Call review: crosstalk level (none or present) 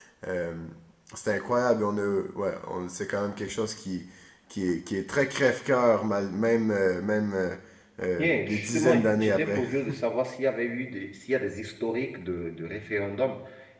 present